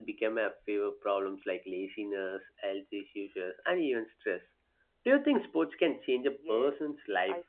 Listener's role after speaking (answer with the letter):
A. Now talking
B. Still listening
A